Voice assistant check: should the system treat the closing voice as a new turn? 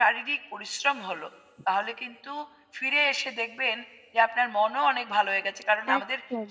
No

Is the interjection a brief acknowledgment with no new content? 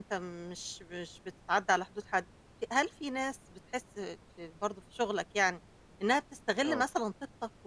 Yes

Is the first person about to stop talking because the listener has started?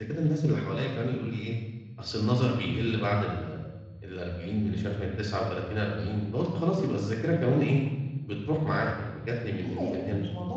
Yes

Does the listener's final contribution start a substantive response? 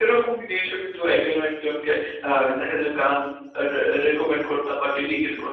Yes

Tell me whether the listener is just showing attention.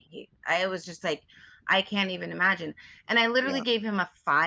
Yes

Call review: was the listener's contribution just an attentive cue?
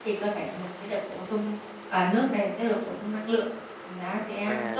No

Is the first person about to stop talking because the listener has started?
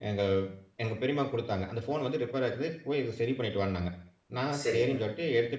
No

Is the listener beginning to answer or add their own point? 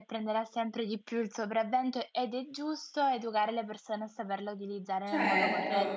Yes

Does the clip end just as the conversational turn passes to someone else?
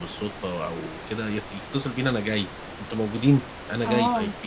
Yes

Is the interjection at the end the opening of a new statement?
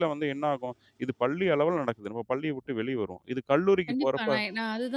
Yes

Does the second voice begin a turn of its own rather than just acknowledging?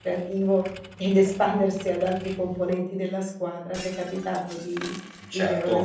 Yes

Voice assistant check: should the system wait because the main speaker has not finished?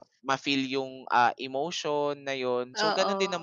Yes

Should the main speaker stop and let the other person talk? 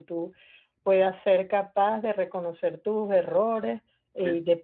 No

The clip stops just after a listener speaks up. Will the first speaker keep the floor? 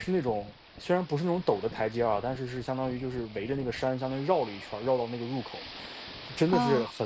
Yes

